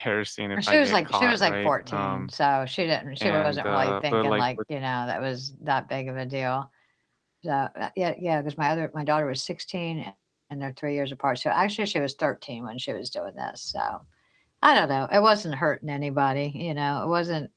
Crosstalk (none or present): present